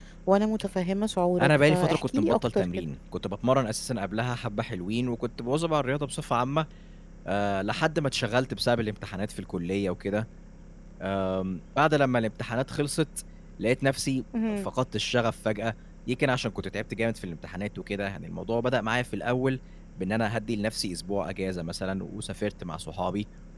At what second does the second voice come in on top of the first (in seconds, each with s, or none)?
1.4 s